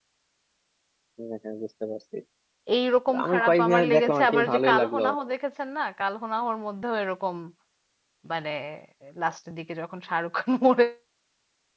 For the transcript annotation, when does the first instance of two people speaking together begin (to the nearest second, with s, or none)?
3 s